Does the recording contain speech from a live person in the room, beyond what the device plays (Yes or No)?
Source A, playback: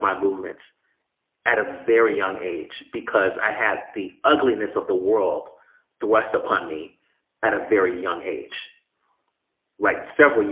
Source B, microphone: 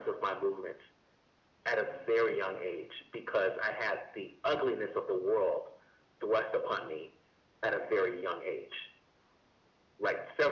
No